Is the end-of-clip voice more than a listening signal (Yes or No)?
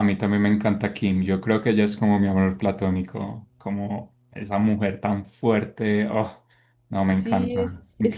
Yes